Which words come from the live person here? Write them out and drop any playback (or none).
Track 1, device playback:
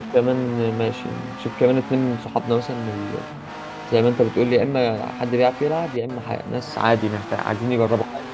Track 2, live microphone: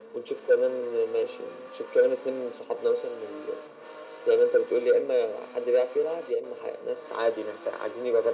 none